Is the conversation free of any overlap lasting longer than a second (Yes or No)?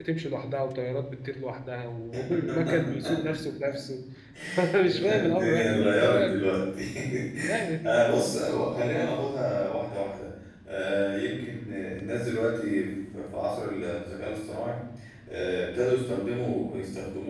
No